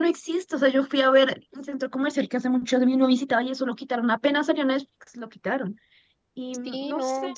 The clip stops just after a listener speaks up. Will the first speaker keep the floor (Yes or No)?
No